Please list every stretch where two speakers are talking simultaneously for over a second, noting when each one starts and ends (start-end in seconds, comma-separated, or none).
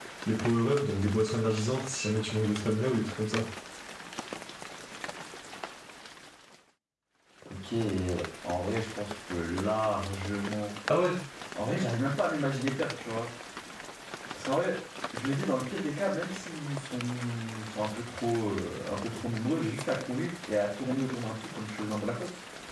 none